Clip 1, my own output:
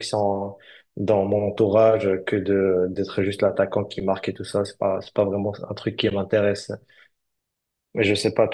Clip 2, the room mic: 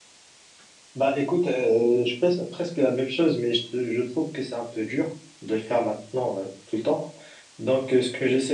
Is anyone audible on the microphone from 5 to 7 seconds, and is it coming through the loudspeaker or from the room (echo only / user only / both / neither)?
user only